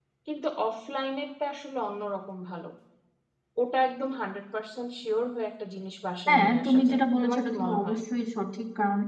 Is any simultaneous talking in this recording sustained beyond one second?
Yes, from 6.3 s

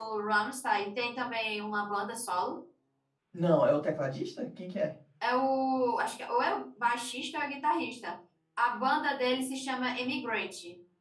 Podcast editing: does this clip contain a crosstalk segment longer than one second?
No

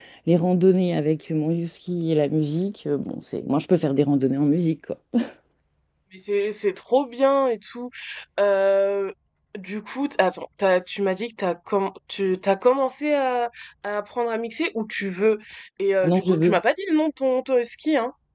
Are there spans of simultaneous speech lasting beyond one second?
No

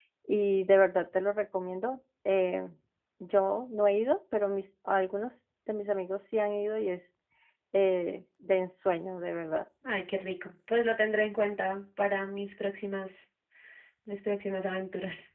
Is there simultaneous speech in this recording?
No

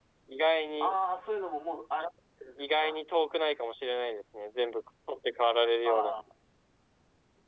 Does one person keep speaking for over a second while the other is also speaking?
No

